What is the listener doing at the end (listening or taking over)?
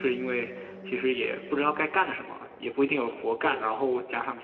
listening